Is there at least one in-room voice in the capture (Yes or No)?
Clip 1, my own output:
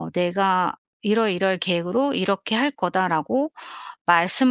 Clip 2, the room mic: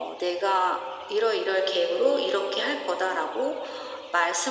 No